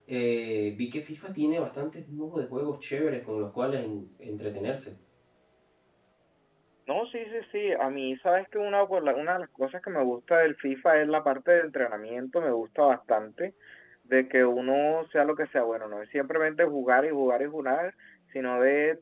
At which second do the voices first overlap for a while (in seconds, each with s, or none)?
none